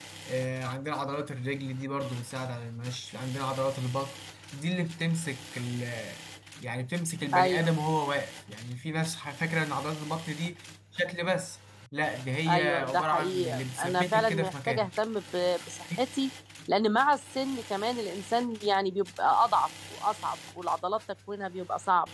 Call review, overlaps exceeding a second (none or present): present